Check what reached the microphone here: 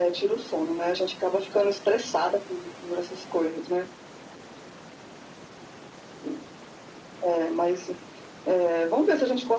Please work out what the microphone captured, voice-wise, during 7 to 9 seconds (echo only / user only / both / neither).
echo only